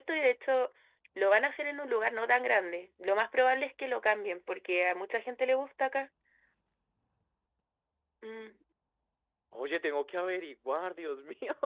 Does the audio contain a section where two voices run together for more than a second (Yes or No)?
No